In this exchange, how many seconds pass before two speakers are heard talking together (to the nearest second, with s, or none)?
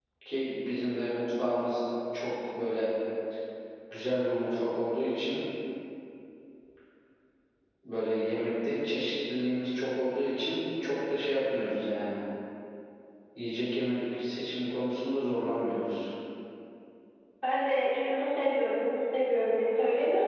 none